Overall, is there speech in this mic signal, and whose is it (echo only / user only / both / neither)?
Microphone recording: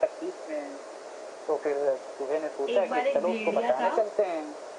both